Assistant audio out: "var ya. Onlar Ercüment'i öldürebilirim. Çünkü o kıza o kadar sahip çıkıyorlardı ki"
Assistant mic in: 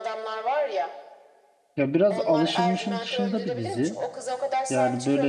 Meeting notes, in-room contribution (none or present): present